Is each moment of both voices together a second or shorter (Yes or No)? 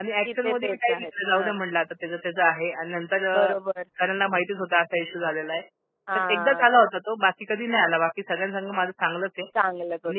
No